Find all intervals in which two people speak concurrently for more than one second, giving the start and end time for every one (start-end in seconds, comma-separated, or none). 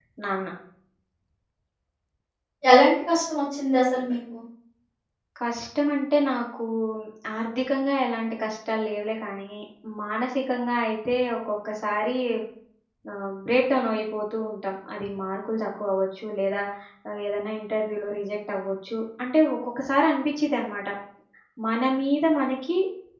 none